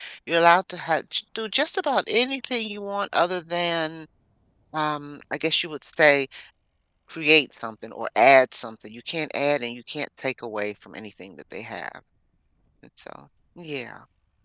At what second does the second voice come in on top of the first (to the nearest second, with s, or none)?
none